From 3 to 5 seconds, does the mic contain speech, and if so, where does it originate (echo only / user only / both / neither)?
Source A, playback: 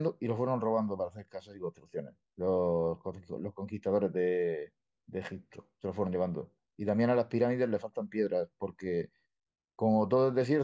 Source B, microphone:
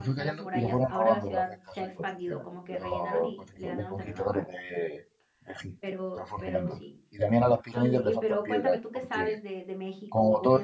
both